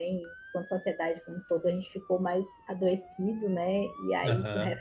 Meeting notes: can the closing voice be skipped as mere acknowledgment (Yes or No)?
Yes